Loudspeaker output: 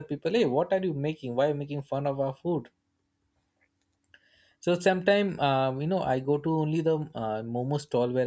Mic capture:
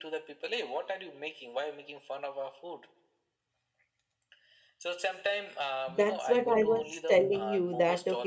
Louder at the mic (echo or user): user